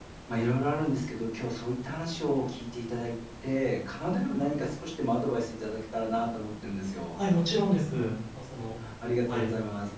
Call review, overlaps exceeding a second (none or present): none